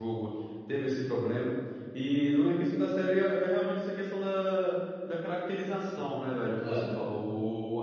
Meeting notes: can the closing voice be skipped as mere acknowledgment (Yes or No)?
Yes